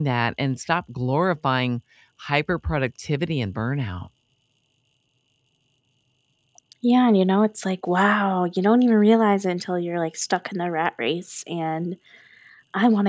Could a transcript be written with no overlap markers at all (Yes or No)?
Yes